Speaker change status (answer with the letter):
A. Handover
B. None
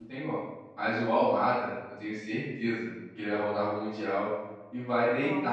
B